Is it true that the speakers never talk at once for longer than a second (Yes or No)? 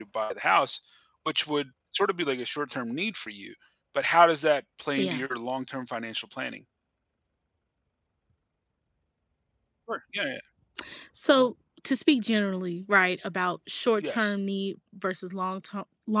Yes